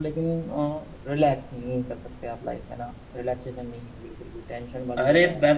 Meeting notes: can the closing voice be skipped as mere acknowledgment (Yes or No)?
No